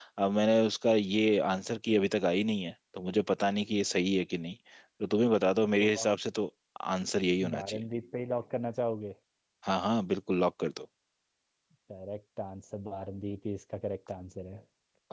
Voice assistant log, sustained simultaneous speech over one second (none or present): none